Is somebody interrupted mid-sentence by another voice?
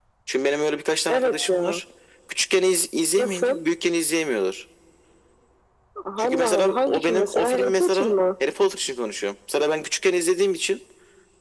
Yes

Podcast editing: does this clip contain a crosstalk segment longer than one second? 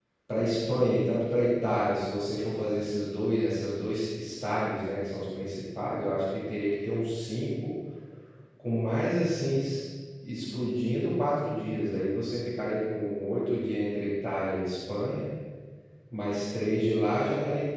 No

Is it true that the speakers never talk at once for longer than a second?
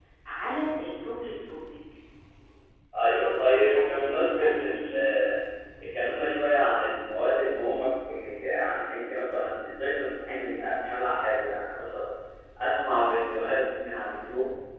No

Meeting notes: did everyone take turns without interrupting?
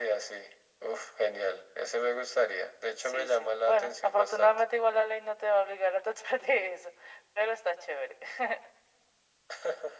No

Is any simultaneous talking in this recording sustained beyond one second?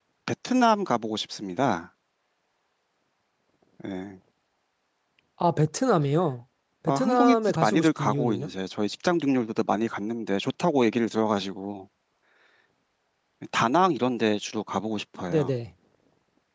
Yes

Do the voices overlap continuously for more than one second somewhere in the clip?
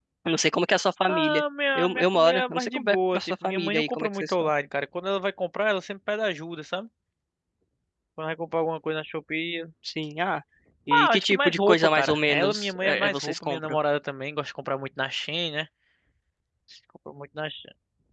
Yes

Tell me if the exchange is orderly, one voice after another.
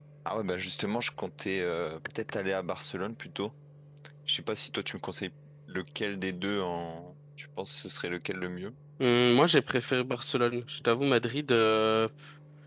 Yes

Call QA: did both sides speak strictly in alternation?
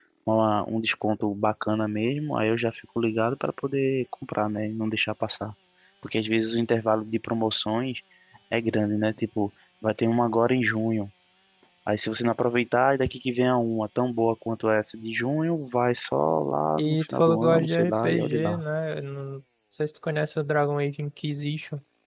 No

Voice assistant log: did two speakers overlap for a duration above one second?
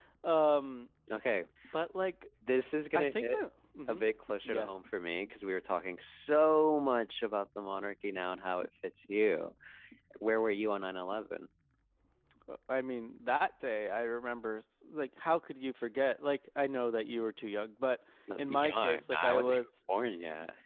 Yes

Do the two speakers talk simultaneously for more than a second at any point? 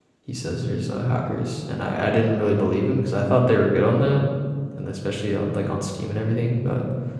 No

